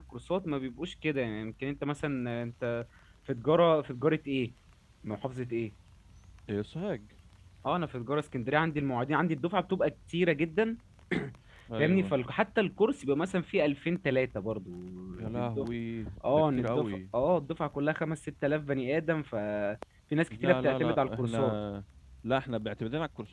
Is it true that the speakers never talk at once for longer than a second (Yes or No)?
No